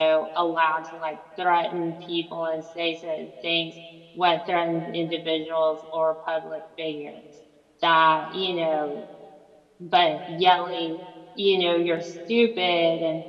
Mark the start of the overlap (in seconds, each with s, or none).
none